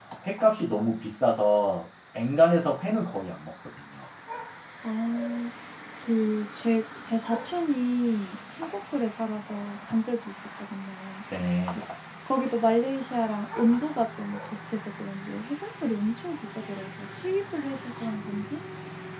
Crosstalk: none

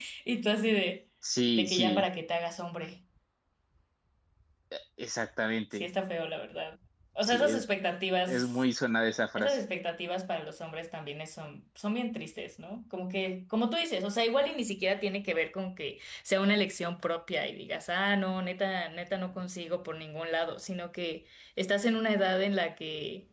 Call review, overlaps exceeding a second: none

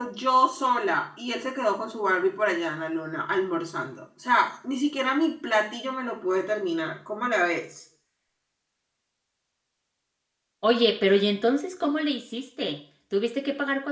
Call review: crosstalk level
none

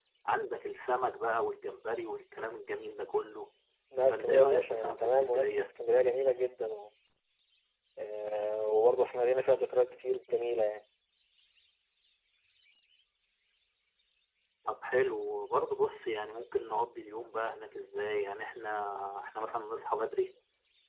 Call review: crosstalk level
present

